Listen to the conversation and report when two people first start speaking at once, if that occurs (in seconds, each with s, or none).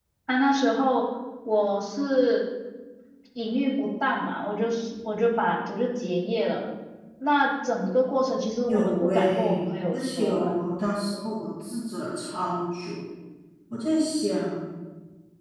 8.7 s